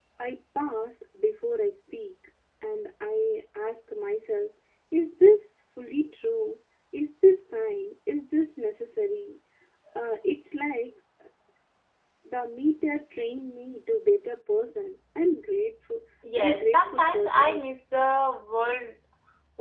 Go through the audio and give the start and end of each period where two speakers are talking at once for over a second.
16.4-17.6

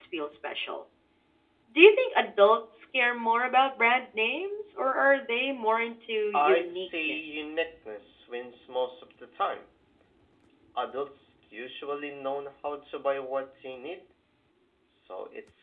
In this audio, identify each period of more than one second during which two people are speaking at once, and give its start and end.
6.3-7.6

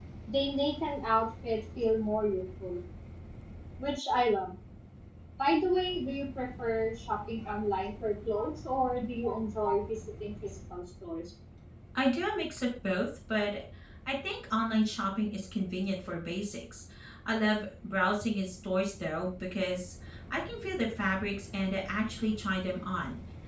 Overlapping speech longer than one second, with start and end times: none

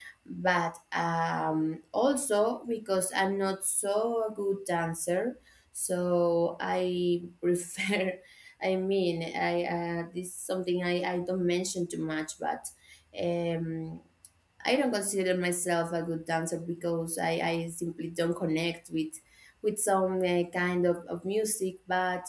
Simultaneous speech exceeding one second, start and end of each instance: none

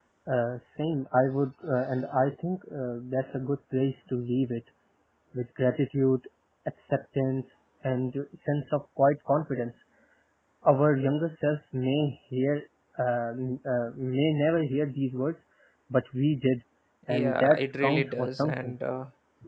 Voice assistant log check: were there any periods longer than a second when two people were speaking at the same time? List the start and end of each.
17.1-18.7

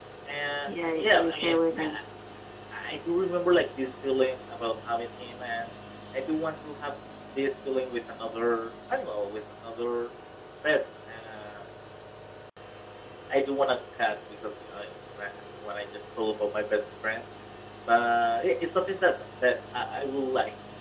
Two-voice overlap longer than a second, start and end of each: 0.7-1.9

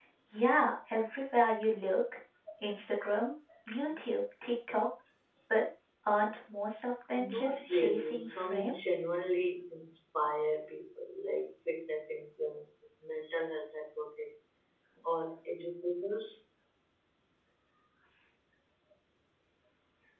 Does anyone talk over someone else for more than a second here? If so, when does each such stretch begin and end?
7.1-8.7

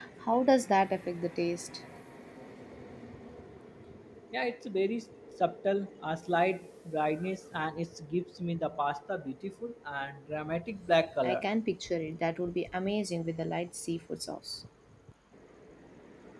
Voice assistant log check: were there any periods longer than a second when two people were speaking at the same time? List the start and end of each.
none

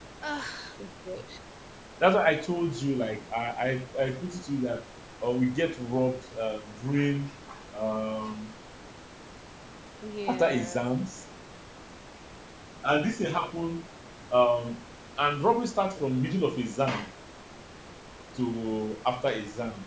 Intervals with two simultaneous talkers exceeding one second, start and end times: none

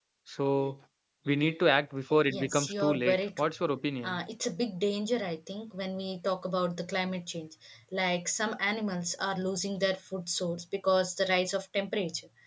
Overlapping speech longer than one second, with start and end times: 2.3-3.5

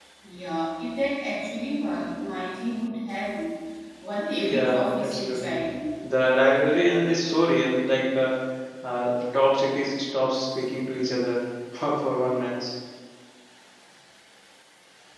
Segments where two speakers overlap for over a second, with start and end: 4.4-5.6

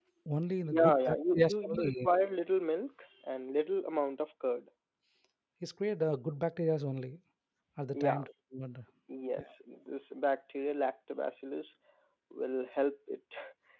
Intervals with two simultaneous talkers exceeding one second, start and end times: 0.7-2.1

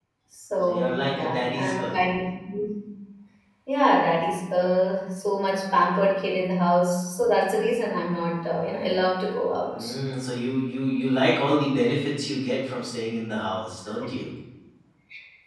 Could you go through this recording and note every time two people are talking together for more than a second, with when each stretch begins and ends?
0.7-2.0

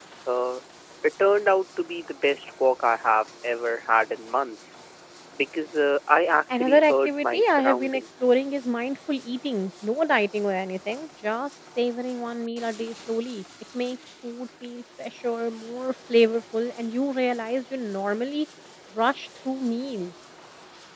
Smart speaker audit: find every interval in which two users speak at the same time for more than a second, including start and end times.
6.5-8.2

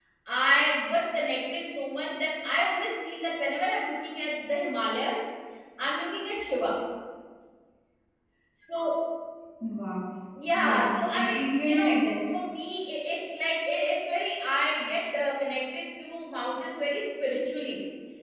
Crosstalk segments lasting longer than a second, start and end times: 10.5-12.0

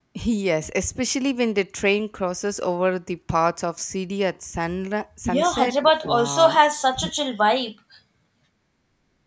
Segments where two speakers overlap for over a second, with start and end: 5.2-6.6

